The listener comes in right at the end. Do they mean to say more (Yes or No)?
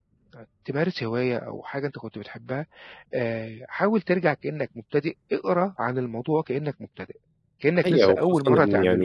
Yes